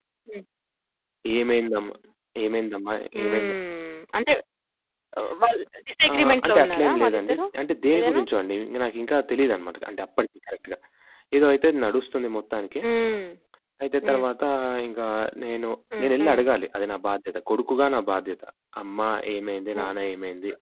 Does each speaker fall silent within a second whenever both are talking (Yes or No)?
No